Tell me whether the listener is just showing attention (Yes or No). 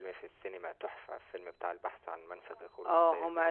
No